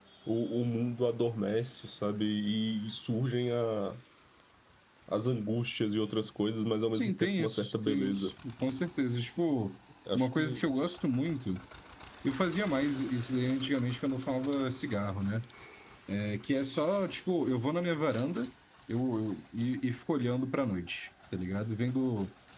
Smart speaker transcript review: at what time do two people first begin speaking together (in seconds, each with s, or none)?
6.9 s